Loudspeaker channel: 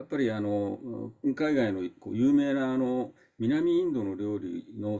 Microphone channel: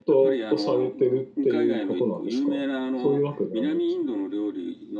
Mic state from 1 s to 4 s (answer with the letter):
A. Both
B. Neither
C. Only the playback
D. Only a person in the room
A